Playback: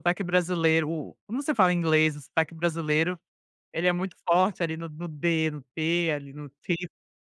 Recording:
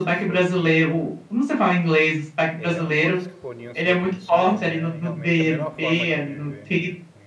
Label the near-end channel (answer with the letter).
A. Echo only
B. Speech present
B